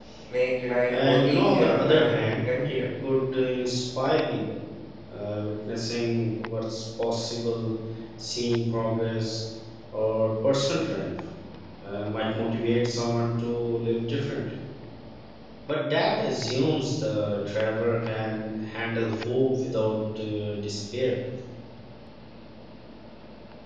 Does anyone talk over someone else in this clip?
Yes, from 0.9 s

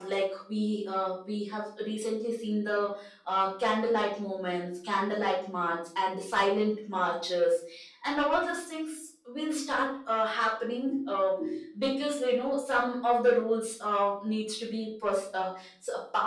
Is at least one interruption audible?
No

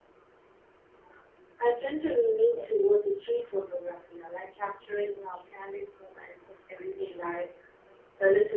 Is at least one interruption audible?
No

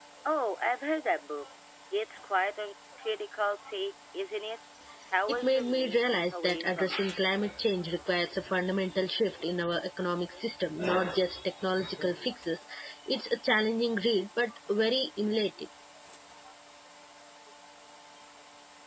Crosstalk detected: Yes, from 5.3 s

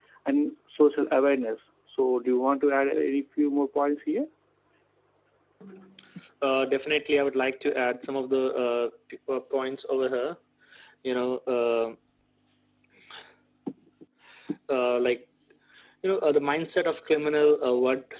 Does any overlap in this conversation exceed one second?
No

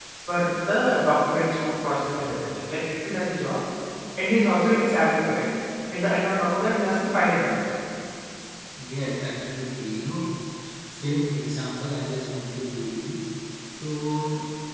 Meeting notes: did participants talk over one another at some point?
No

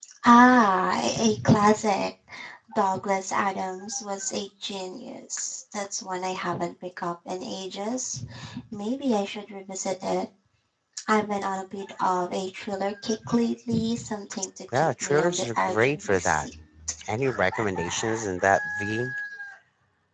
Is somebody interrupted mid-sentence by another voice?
Yes, from 14.7 s

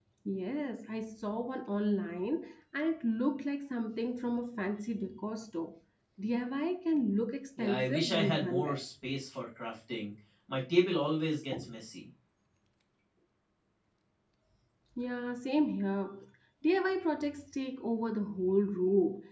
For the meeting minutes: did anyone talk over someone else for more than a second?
Yes, from 7.6 s

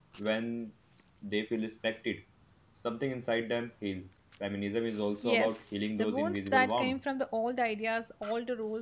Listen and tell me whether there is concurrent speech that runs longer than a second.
Yes, from 5.2 s

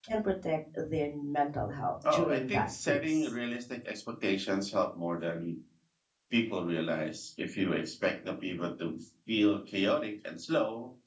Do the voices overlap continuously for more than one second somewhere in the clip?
Yes, from 2.0 s

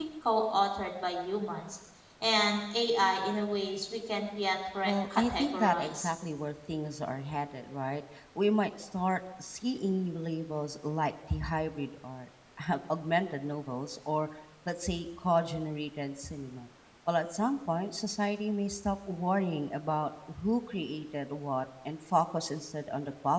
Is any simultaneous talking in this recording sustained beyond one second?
Yes, from 4.8 s

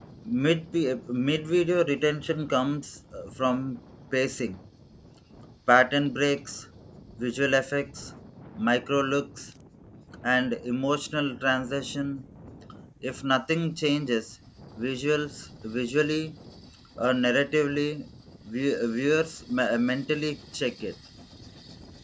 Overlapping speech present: No

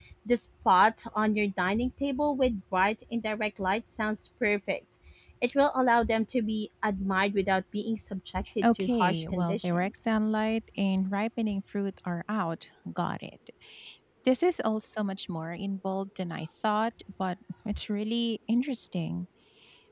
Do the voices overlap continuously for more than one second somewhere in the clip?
Yes, from 8.6 s

